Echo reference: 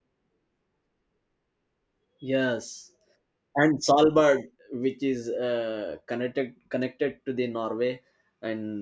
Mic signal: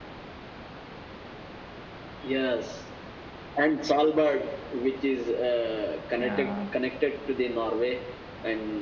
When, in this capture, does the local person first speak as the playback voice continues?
6.2 s

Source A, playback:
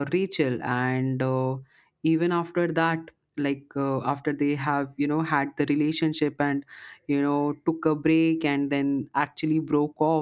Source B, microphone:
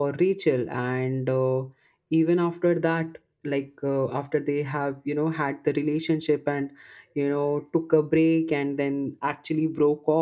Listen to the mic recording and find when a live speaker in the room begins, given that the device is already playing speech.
none

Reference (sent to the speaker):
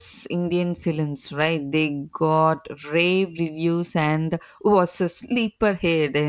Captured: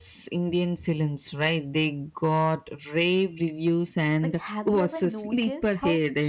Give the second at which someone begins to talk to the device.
4.2 s

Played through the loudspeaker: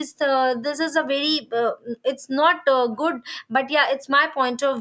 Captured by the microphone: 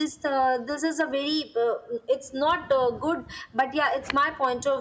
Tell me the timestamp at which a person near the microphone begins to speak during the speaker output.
none

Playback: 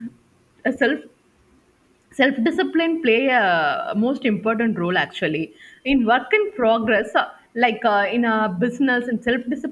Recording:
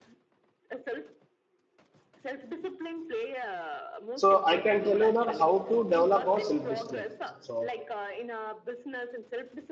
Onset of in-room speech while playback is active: 4.2 s

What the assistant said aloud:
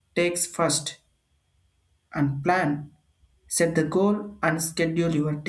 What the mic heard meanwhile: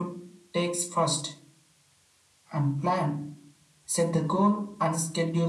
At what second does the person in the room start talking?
none

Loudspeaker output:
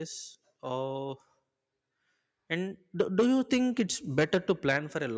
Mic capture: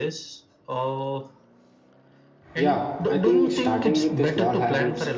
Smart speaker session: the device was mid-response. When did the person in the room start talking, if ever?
2.6 s

